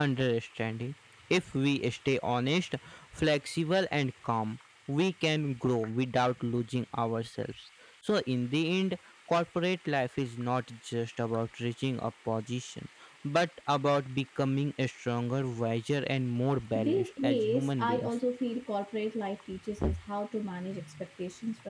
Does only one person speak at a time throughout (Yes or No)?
No